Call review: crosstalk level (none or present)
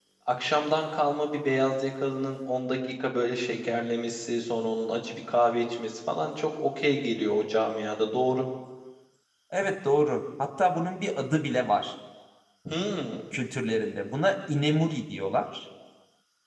none